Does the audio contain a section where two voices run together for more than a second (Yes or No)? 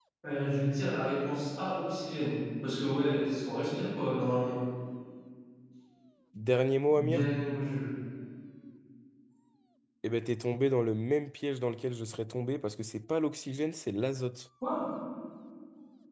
No